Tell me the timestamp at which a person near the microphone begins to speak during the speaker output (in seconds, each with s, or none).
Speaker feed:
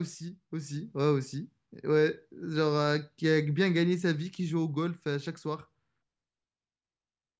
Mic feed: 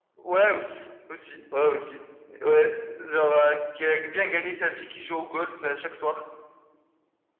none